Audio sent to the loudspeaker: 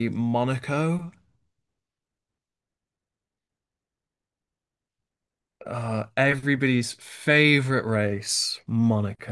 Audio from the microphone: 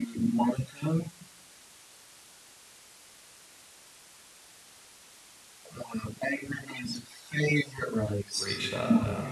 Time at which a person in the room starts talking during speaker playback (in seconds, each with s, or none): 8.4 s